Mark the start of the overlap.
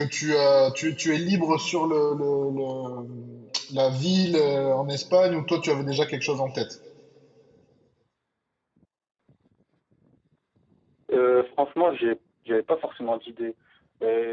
none

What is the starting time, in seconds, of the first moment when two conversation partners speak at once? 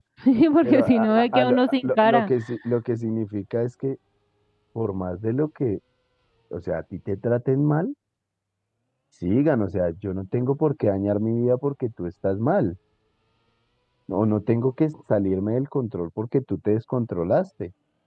1 s

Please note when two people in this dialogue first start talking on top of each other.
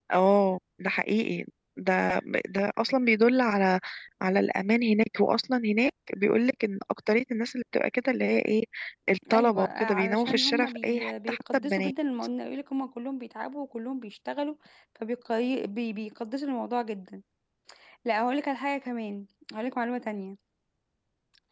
9 s

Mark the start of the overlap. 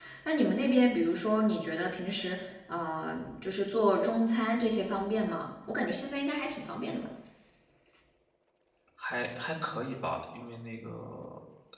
none

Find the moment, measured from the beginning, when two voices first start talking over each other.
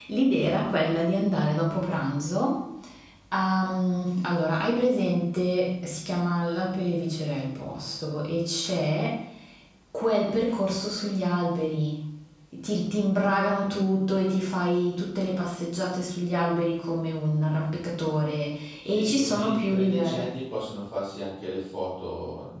19 s

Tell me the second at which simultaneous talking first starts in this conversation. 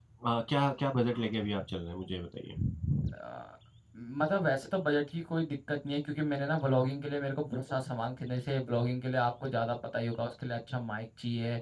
none

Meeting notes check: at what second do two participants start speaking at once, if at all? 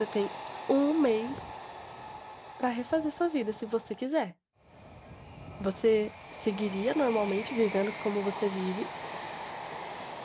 none

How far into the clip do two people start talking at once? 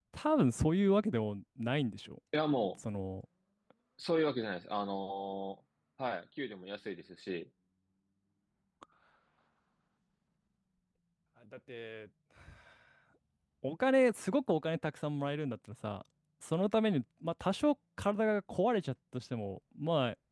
none

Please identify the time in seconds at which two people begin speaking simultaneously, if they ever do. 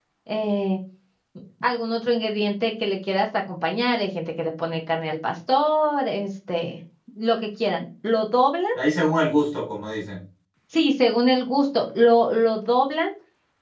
none

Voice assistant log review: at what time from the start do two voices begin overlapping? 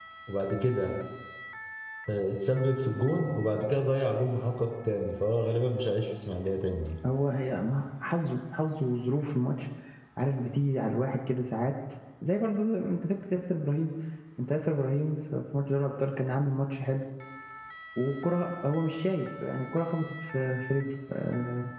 none

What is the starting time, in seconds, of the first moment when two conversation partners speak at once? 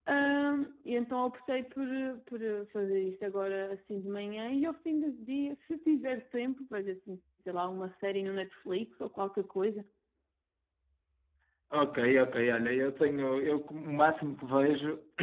none

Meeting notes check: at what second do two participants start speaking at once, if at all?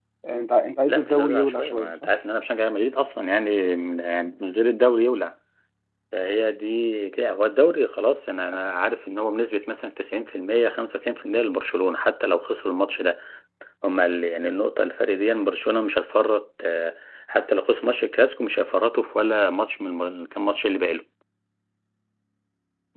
1 s

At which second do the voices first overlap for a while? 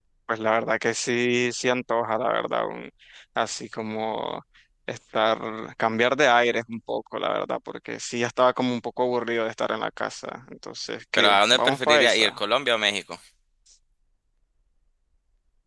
11 s

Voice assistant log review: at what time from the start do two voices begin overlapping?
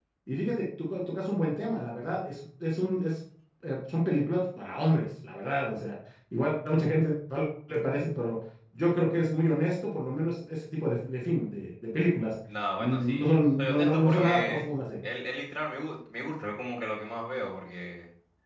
13 s

